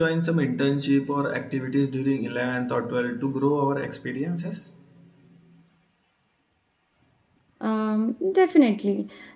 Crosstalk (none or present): none